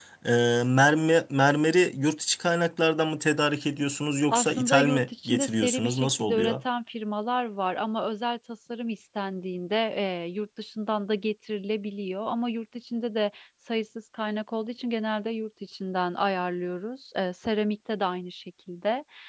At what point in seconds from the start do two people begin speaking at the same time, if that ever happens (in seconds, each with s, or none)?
4.3 s